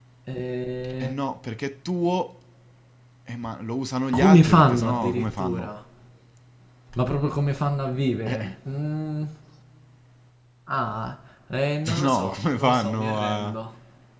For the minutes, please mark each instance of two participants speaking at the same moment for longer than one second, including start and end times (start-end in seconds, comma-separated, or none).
4.1-5.7, 12.0-13.6